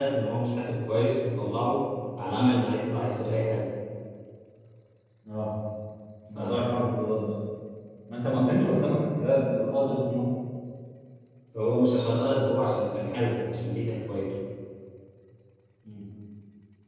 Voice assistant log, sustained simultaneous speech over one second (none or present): none